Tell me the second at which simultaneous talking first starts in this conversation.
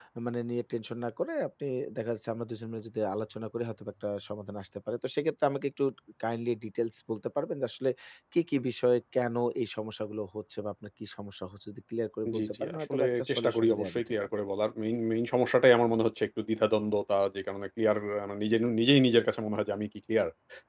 12.2 s

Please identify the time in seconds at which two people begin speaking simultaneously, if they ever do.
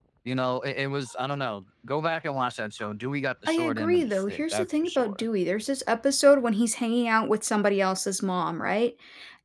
3.5 s

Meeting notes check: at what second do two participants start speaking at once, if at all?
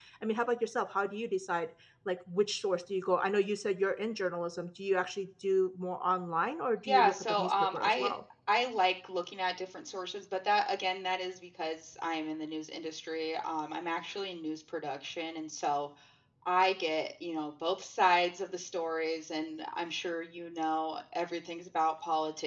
6.9 s

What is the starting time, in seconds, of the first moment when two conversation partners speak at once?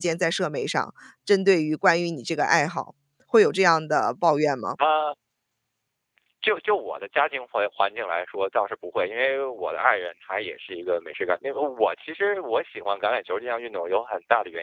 none

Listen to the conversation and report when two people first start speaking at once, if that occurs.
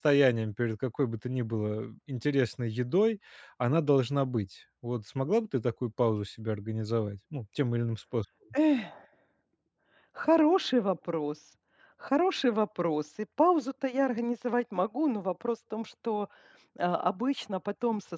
none

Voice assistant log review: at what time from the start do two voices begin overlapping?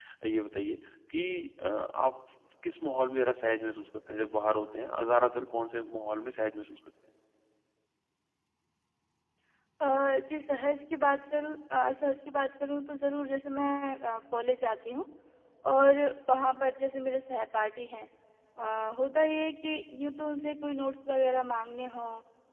none

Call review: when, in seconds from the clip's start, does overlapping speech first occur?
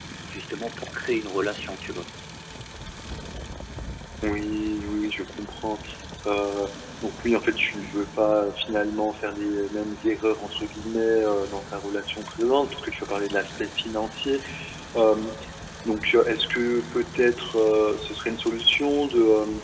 none

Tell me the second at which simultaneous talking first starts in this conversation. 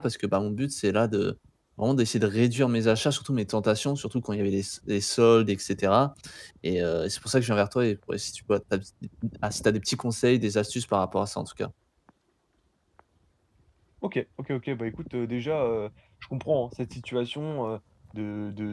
none

